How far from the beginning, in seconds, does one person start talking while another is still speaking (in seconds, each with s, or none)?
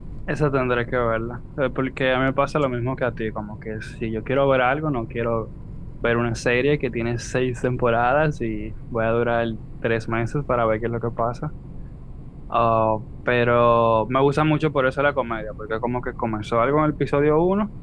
none